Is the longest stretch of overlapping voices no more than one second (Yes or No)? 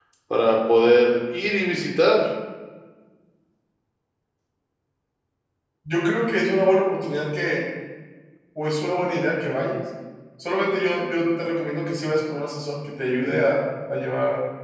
Yes